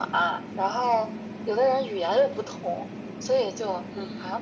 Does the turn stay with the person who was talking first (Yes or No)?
Yes